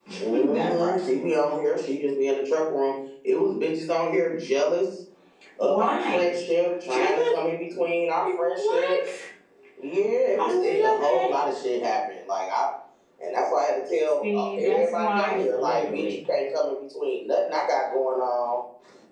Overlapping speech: Yes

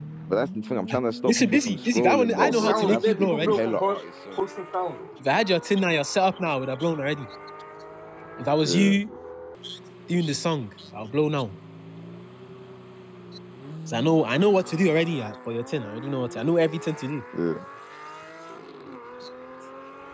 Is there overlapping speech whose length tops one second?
Yes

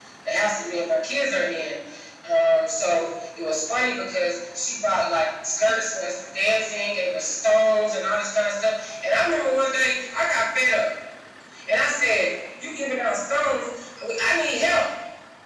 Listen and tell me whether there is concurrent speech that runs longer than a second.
No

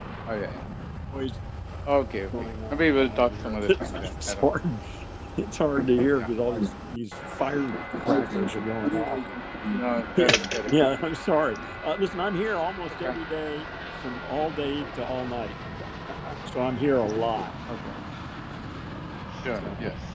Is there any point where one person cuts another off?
Yes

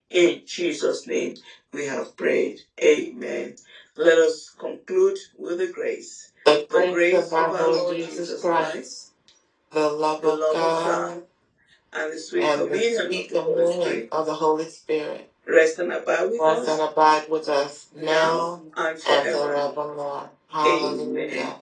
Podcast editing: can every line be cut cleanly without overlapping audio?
No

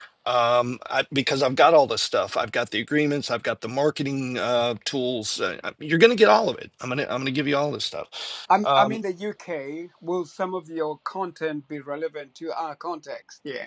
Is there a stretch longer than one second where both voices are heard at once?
No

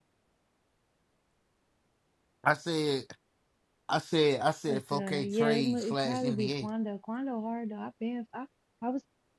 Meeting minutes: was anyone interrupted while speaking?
Yes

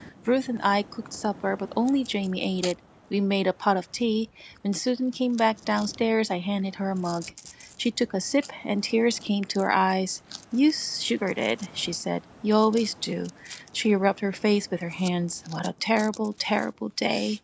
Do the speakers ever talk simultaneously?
No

